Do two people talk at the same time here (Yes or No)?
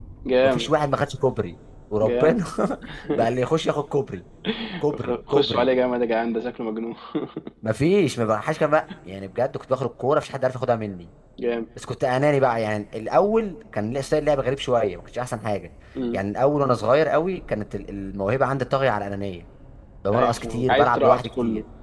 Yes